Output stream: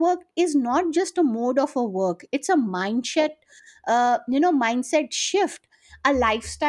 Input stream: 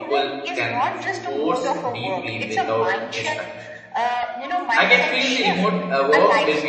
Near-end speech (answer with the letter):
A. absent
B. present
B